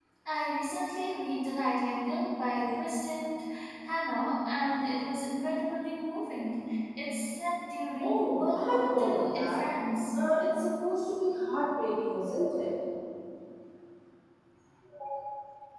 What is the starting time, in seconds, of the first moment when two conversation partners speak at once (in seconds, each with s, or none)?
8.0 s